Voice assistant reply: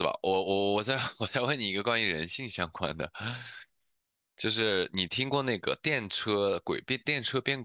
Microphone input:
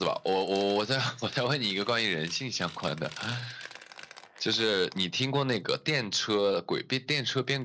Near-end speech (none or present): none